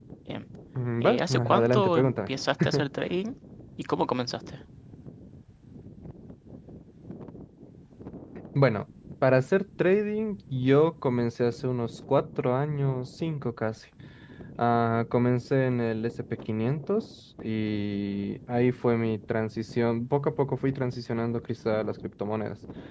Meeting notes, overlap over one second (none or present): present